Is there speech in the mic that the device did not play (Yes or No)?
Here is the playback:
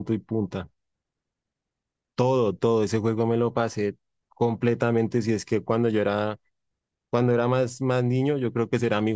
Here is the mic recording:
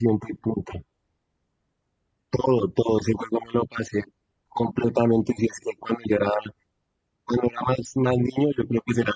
No